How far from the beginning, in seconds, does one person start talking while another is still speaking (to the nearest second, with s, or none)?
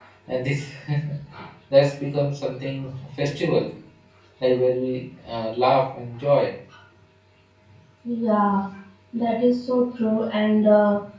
none